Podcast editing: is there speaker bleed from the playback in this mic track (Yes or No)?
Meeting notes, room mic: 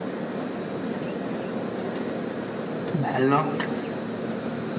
No